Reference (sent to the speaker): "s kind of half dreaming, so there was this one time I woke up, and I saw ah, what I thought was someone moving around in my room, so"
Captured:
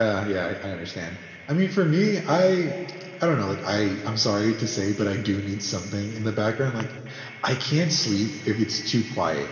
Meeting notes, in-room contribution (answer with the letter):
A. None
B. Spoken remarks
B